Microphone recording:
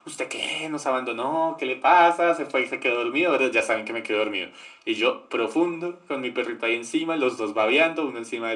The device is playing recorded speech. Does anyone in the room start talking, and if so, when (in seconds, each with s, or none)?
none